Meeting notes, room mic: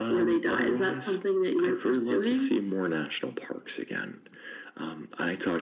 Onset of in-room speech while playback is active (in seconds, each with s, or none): none